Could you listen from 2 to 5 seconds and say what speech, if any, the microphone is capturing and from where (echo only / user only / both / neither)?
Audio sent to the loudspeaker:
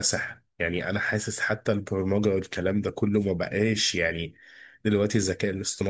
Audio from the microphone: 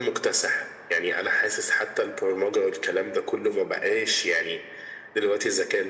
echo only